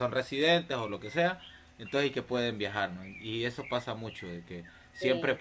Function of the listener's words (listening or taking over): listening